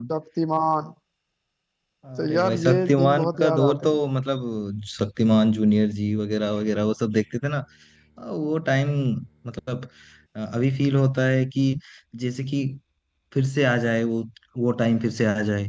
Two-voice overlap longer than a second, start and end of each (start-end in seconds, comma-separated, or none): 2.2-4.0